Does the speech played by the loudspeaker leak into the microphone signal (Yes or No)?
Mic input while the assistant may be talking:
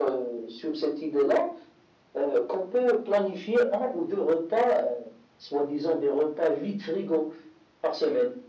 Yes